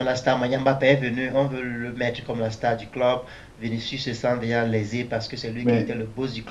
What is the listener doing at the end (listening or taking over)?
listening